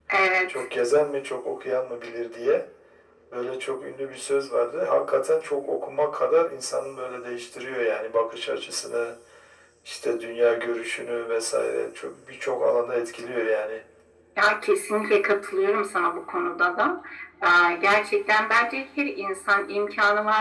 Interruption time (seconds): none

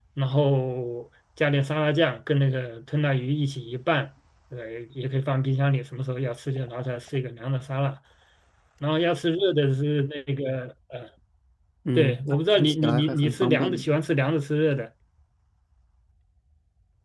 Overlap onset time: 12.0 s

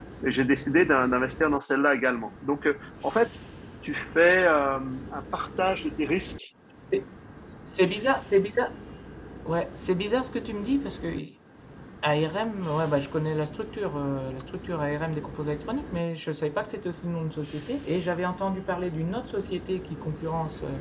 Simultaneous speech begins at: none

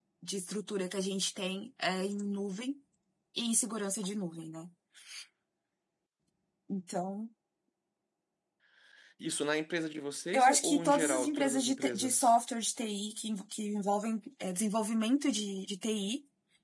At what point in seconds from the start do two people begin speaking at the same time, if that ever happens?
10.3 s

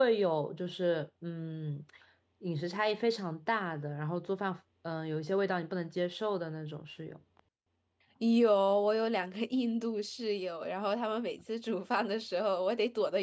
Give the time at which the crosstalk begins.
none

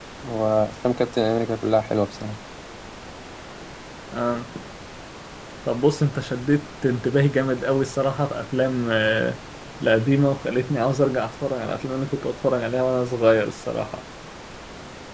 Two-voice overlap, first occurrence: none

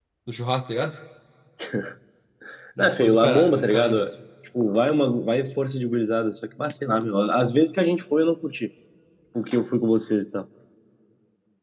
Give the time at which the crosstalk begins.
2.8 s

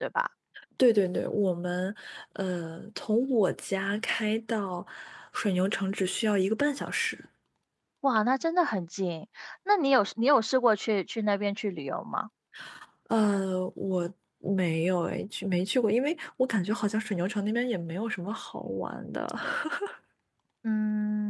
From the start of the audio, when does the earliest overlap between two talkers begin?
none

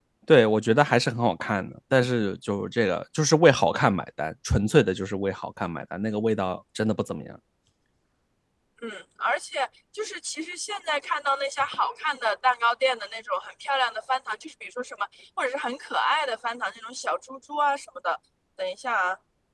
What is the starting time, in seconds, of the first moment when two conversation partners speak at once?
none

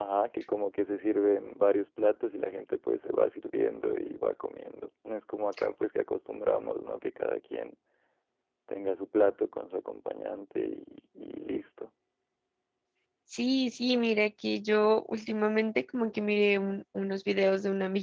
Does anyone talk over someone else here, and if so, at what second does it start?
none

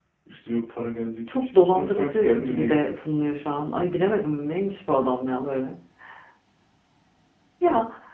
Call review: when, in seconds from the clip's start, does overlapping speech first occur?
1.3 s

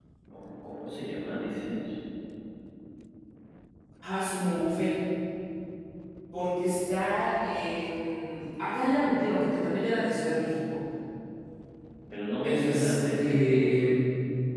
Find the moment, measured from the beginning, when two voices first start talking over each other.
12.4 s

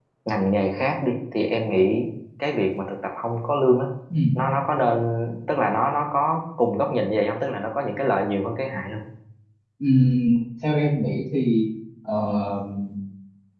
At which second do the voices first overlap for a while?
none

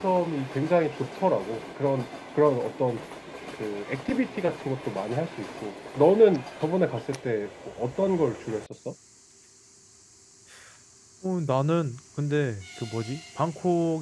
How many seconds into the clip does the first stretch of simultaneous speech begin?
none

